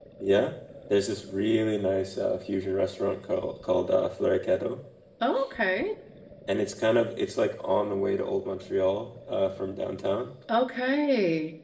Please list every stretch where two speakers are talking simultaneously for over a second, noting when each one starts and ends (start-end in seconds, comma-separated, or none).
none